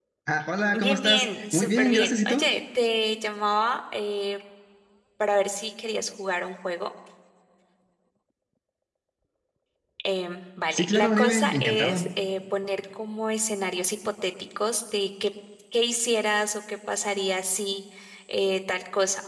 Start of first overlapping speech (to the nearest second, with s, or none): 1 s